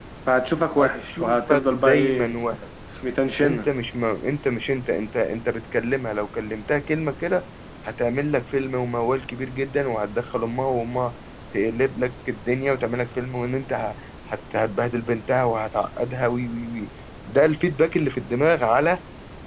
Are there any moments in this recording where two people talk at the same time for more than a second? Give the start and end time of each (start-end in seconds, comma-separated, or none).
0.8-2.3